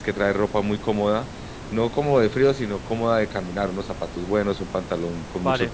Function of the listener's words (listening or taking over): listening